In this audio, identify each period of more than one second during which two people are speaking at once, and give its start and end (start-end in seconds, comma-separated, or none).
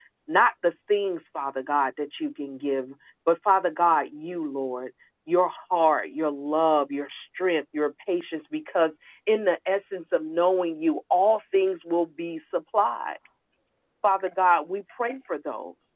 none